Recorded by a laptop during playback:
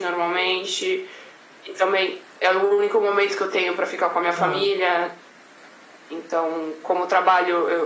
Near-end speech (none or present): present